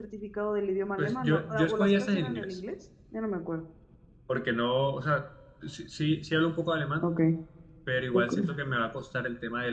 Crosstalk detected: Yes, from 1.0 s

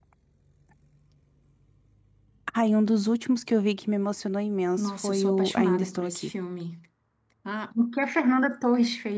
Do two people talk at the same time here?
Yes, from 4.8 s

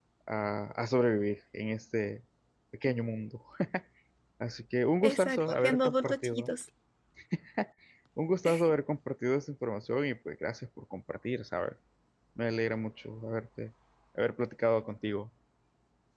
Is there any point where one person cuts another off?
Yes, from 5.0 s

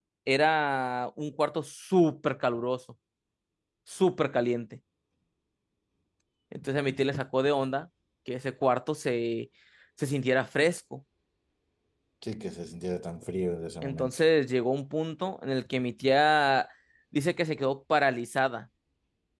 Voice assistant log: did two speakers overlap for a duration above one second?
No

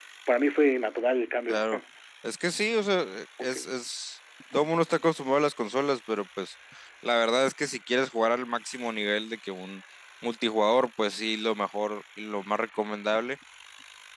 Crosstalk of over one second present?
No

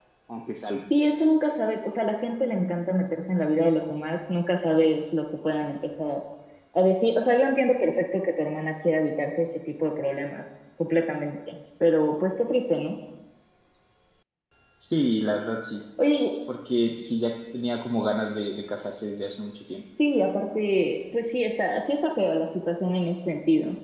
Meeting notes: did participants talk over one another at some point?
No

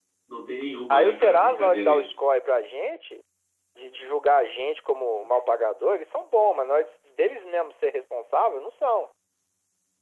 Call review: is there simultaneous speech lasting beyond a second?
Yes, from 0.9 s

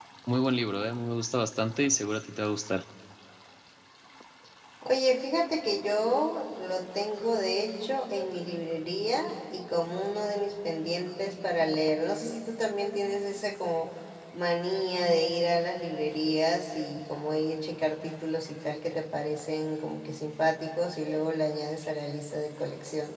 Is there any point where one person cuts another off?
No

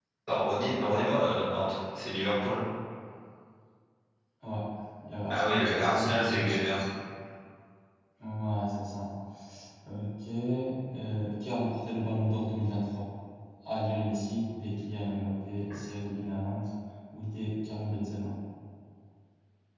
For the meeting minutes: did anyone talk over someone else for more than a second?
Yes, from 5.3 s

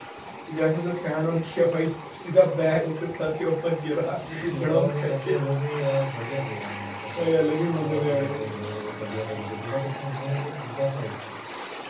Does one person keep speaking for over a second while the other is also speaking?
Yes, from 4.0 s

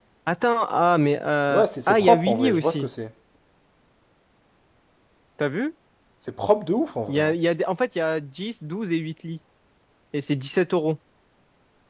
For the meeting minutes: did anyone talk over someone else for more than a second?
Yes, from 1.5 s

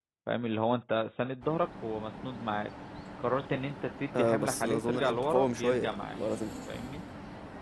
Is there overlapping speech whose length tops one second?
Yes, from 4.1 s

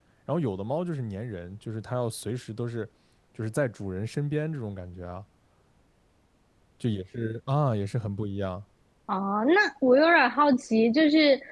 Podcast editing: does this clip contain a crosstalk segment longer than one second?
No

